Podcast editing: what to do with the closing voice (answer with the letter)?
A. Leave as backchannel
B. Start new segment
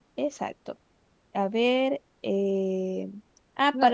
A